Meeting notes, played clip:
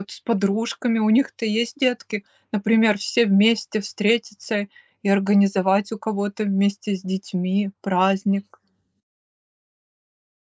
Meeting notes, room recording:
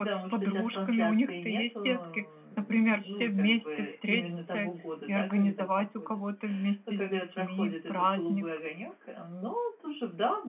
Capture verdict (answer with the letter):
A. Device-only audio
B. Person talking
B